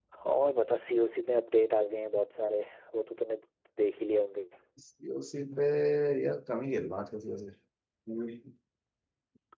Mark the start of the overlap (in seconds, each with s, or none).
none